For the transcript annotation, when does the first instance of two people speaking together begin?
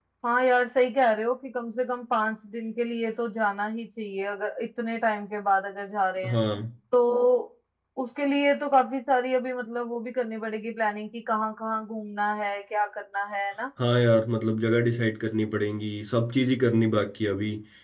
none

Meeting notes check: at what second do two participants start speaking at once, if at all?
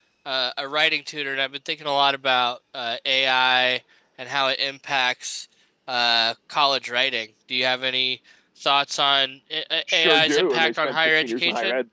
9.9 s

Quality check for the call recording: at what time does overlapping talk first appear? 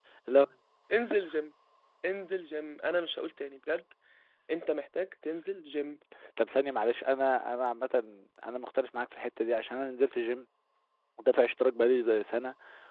none

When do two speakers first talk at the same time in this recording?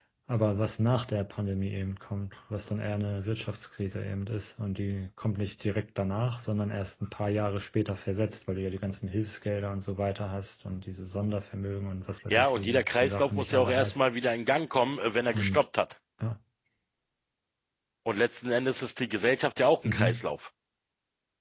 12.3 s

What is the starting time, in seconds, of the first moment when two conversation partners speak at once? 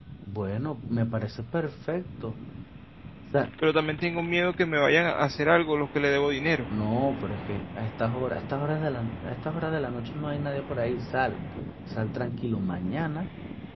none

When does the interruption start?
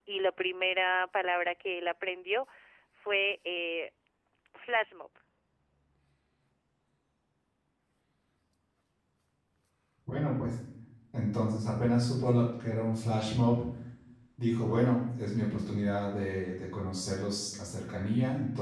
none

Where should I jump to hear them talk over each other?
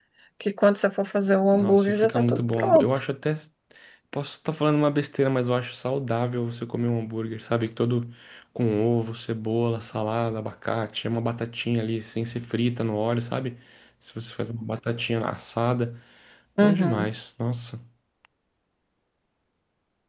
1.5 s

